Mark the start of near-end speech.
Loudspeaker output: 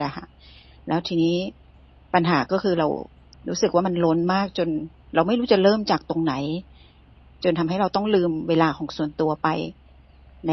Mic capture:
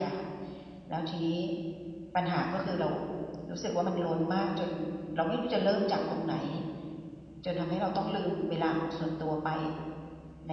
none

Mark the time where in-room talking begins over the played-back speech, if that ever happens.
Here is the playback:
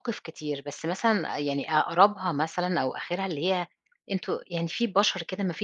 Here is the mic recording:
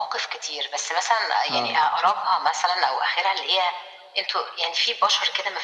1.5 s

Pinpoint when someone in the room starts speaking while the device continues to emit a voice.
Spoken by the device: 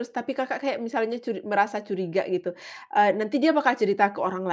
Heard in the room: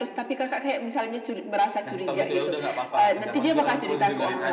1.8 s

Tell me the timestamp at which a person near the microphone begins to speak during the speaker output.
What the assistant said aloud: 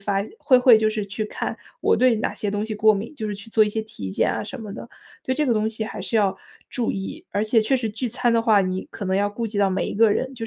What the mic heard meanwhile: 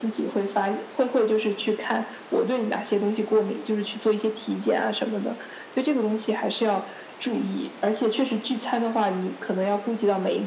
none

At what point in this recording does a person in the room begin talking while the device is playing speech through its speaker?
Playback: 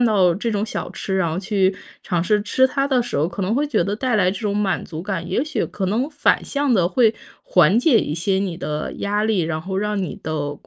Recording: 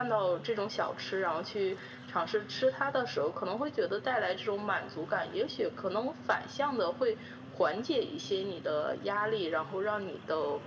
none

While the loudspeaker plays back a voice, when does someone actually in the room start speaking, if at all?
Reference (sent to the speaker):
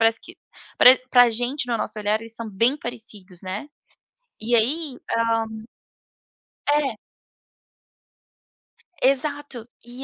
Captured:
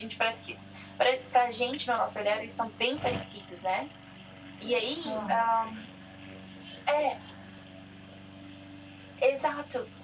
5.0 s

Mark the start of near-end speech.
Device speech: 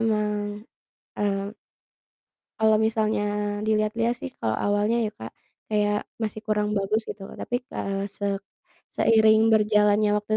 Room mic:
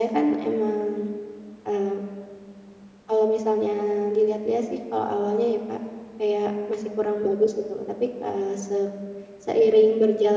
none

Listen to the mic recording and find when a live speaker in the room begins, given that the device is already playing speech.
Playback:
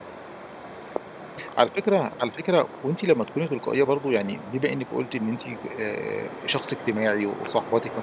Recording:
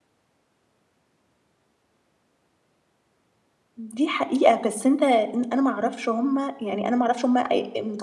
3.8 s

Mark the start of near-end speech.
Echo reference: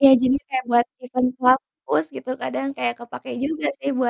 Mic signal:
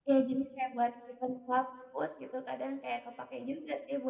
none

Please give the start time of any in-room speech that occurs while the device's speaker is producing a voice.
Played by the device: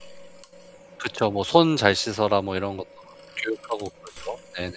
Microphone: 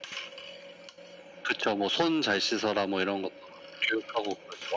none

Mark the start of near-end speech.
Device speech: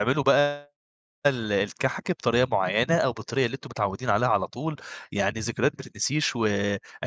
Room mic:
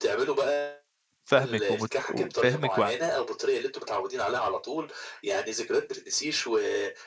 1.2 s

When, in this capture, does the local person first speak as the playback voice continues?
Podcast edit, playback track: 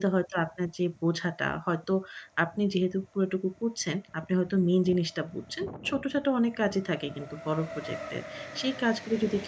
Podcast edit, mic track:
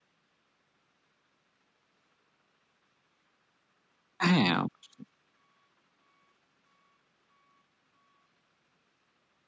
4.3 s

